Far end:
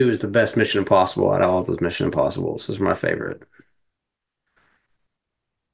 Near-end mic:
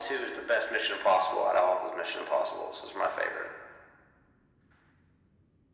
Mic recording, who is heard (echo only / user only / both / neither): echo only